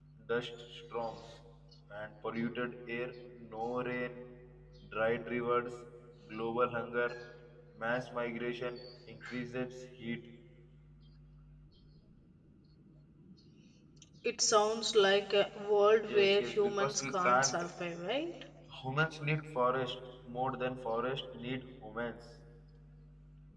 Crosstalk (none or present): present